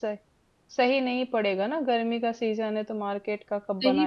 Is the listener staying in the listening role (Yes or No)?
No